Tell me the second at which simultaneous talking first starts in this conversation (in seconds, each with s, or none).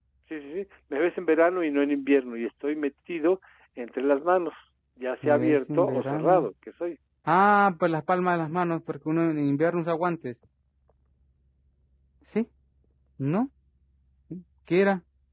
5.2 s